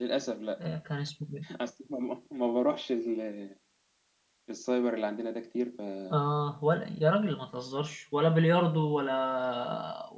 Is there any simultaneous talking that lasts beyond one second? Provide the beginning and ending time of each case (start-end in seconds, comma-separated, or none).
none